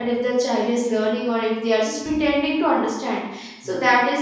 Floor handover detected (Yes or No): No